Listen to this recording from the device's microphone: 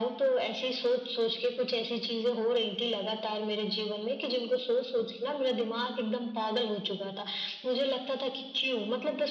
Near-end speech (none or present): none